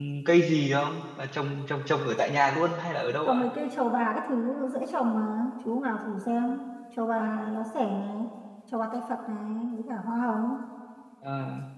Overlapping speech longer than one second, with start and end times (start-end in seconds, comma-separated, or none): none